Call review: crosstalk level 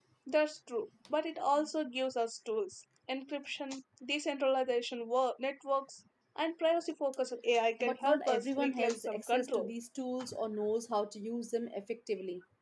present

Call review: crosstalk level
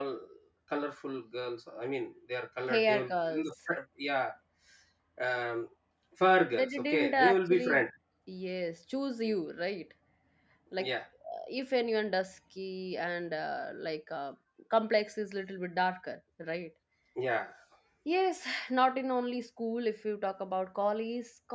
present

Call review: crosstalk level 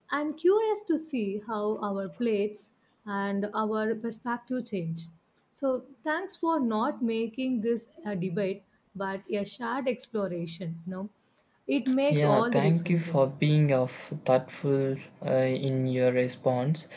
present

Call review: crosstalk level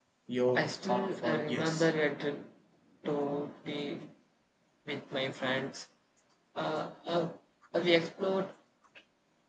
present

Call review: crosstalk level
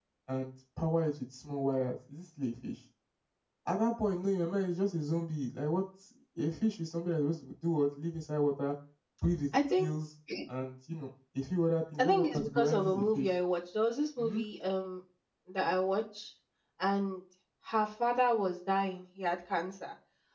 present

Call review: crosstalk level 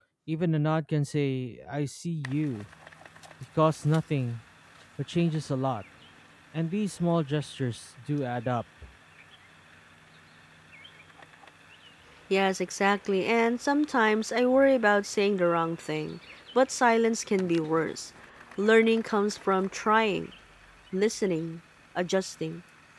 none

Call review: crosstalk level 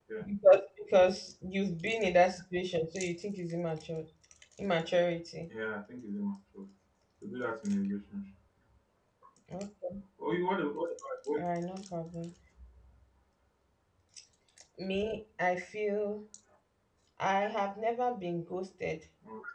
none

